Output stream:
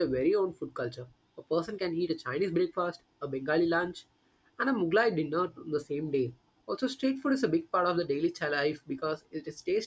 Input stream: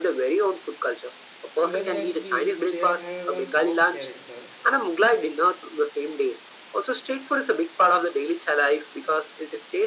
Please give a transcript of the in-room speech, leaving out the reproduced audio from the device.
Even the sweets there have a soft character,

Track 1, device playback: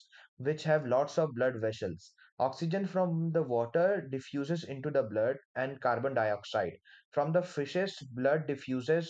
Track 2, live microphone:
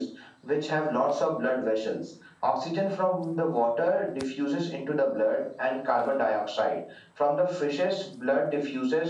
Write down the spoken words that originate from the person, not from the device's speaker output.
none

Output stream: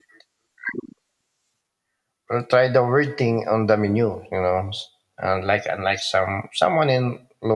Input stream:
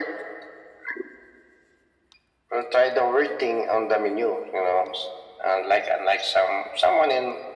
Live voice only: none

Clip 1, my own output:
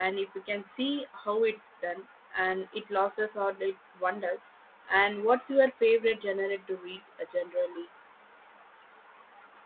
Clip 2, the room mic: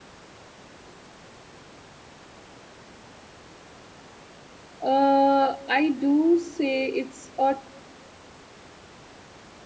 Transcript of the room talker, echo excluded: Uh, I do say it's a

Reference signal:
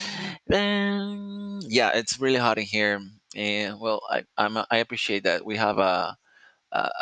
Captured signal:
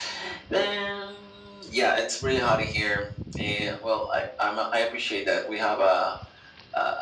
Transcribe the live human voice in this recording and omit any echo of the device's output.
none

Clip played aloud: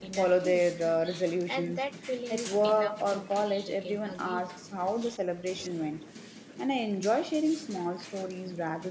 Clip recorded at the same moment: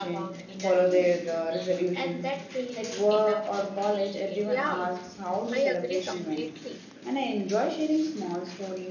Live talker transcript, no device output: Yeah, I agree completely.

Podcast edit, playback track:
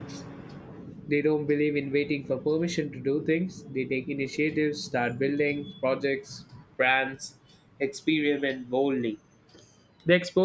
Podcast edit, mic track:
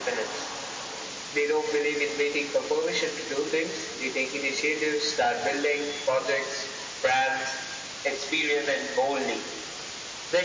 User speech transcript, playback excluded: none

